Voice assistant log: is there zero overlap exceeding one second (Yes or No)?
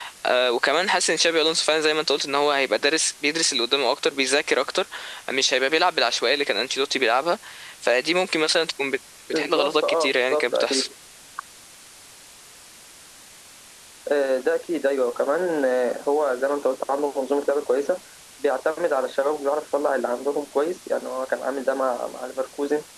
No